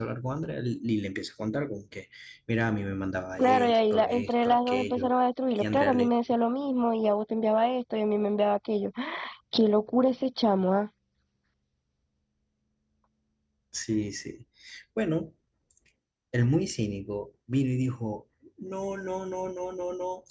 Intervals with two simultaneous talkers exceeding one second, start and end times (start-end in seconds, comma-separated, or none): 3.4-5.1